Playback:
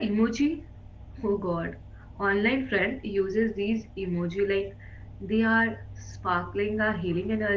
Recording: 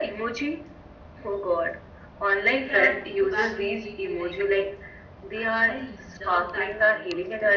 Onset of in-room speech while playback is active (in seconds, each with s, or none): 2.4 s